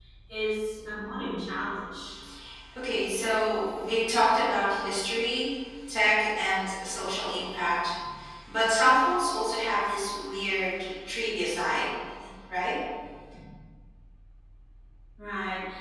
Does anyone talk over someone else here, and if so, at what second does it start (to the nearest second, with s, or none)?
none